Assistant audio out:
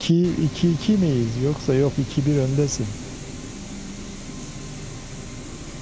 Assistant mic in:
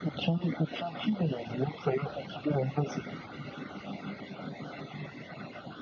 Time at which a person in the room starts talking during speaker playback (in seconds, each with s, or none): none